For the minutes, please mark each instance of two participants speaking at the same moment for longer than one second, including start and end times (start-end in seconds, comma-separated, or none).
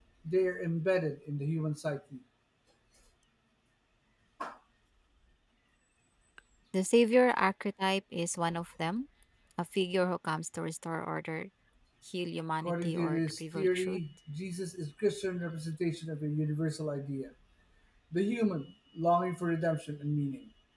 12.6-14.0